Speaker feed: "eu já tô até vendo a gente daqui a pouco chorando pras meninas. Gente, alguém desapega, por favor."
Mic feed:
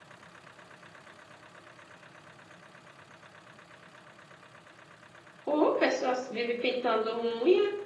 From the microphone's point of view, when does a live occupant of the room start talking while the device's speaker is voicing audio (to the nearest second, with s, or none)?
5 s